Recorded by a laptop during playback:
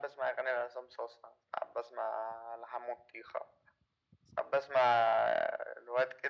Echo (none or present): present